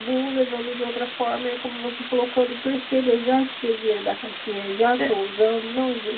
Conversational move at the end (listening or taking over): listening